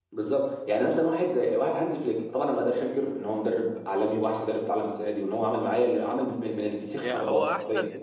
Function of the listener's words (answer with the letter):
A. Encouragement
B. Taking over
B